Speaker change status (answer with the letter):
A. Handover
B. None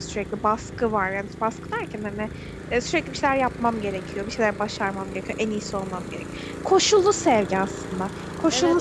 A